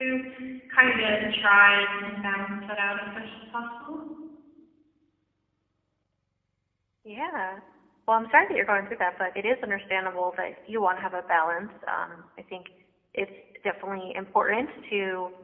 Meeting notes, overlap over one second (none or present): none